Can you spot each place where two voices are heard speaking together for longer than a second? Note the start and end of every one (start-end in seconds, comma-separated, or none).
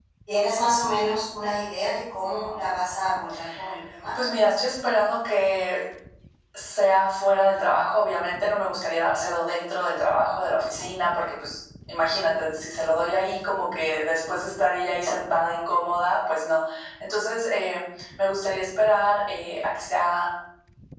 none